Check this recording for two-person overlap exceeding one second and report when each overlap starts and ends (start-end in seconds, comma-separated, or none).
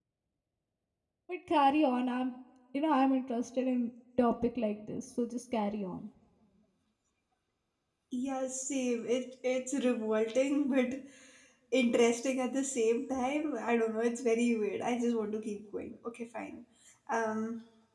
none